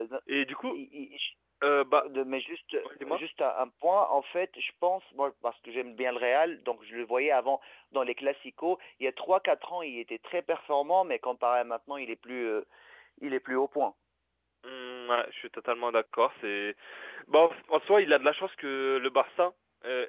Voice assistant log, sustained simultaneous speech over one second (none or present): none